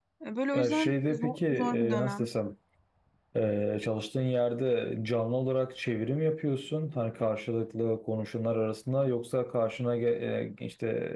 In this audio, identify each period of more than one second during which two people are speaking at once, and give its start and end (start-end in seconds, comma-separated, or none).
0.6-2.3